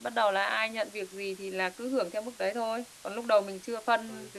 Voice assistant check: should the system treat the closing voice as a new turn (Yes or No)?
No